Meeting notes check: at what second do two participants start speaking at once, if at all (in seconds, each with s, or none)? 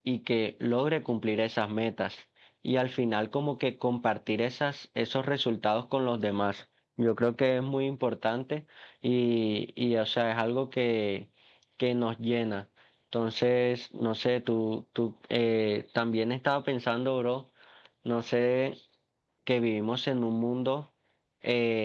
none